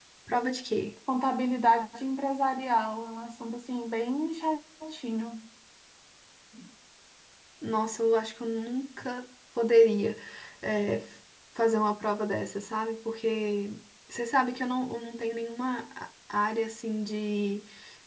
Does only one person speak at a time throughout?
Yes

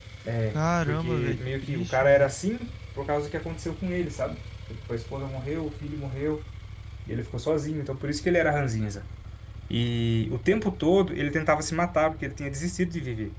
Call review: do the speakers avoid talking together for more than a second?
No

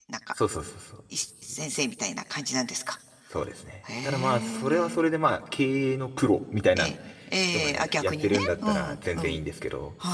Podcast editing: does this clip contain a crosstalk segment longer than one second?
Yes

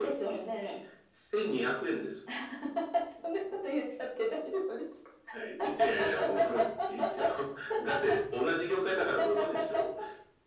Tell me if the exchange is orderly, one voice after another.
Yes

